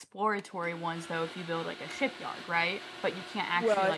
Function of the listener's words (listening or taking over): taking over